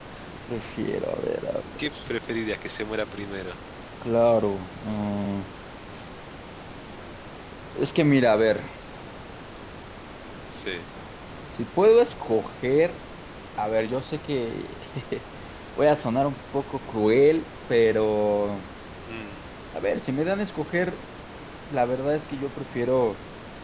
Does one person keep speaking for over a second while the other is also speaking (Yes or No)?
No